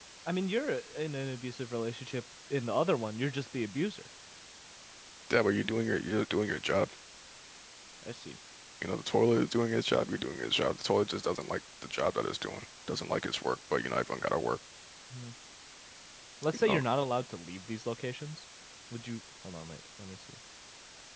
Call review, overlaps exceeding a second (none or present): none